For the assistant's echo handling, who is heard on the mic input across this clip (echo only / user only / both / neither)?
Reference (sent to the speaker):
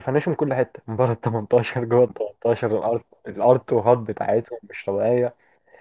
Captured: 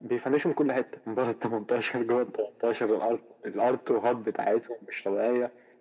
echo only